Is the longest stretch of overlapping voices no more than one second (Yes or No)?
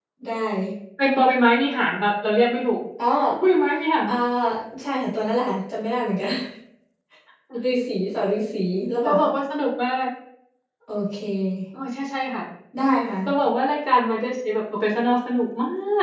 Yes